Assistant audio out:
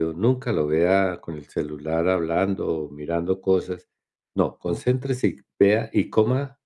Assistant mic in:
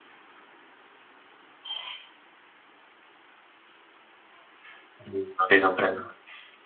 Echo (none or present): none